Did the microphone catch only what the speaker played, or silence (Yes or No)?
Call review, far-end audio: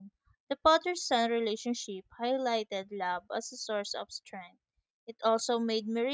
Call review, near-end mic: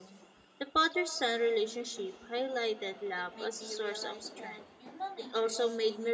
No